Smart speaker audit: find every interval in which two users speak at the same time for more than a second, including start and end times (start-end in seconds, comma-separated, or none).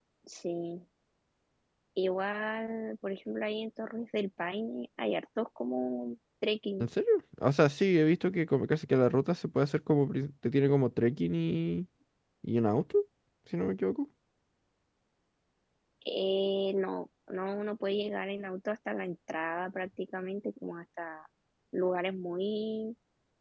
none